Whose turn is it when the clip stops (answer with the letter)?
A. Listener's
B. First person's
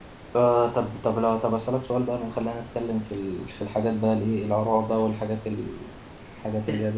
B